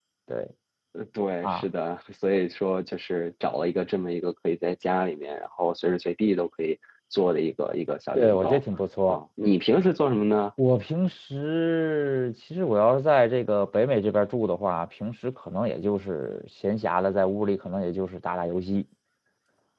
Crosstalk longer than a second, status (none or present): none